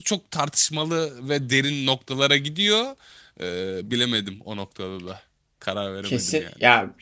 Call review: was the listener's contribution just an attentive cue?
No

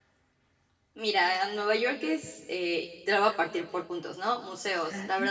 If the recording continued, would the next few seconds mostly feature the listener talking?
No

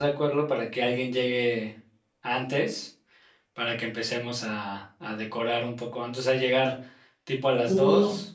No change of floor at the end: Yes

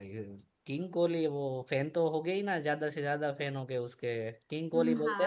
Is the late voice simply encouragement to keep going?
No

